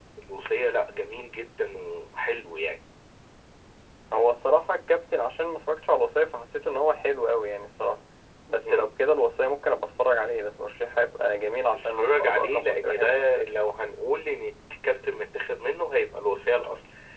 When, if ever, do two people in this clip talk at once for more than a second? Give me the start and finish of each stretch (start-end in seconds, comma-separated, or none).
11.7-13.2